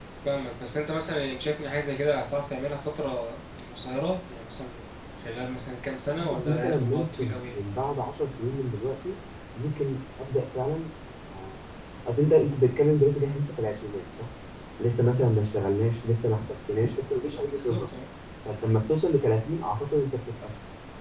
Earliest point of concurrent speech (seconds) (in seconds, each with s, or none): 6.2 s